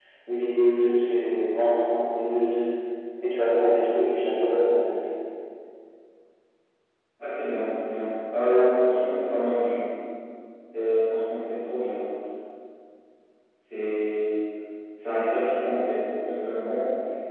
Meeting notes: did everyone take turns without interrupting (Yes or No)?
Yes